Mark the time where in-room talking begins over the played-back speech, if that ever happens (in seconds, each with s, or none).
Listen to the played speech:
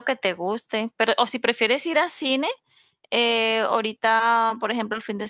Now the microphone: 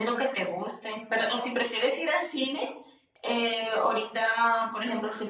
none